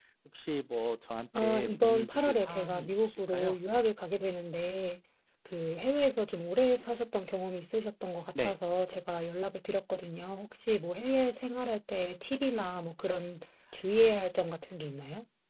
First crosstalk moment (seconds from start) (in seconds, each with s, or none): 1.3 s